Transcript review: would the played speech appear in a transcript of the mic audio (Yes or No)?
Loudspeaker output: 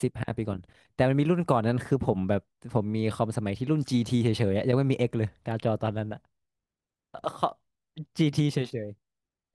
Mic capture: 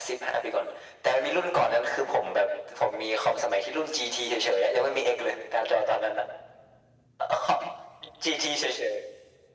Yes